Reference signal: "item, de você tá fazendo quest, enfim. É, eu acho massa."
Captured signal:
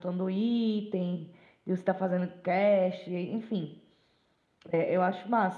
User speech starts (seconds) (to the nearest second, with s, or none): none